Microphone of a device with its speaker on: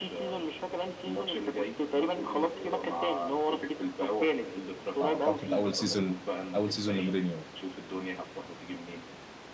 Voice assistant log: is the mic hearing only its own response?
No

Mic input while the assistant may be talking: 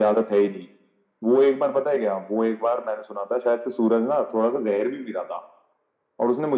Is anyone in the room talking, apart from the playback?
No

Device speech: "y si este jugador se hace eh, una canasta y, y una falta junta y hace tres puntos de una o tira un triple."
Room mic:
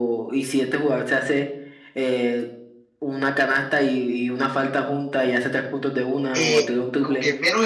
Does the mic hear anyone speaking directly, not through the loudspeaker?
Yes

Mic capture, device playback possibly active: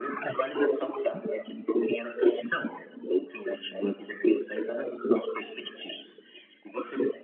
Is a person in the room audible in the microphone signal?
No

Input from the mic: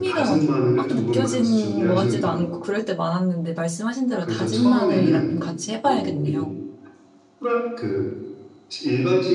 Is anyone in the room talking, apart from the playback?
Yes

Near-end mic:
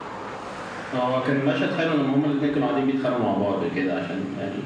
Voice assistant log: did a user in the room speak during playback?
No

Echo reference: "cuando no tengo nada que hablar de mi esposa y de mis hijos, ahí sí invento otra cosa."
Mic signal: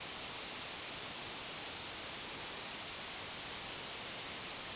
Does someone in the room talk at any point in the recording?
No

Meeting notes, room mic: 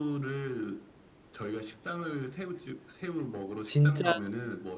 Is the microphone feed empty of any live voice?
No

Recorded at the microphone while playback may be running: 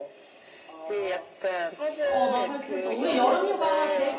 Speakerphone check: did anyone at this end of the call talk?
Yes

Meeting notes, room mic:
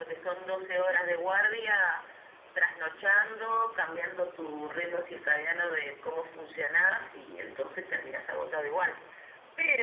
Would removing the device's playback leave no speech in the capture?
Yes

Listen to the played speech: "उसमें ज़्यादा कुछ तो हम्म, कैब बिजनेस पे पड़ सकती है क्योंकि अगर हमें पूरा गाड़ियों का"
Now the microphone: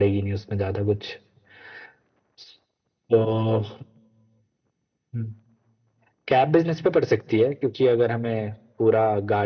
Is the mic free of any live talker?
Yes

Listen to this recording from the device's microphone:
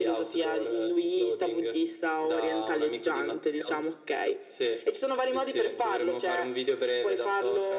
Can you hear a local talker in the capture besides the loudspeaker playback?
No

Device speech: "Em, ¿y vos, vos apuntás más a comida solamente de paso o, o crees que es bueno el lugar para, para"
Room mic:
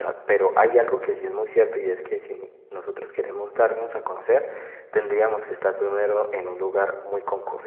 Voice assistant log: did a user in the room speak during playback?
Yes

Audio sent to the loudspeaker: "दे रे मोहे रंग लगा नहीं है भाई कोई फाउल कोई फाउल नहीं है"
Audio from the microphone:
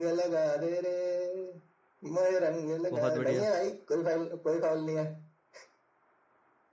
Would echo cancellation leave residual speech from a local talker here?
Yes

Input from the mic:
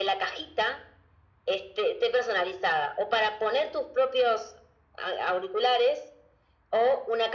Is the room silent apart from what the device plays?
Yes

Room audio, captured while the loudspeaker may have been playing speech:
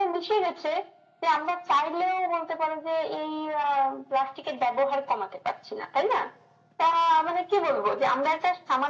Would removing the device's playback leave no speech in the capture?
Yes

